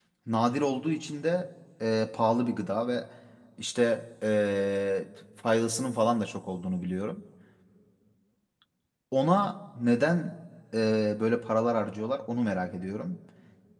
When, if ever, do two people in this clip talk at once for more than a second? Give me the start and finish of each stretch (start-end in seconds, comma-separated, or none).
none